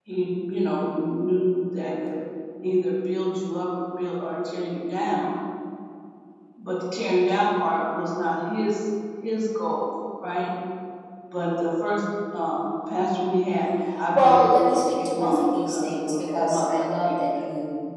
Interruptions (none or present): present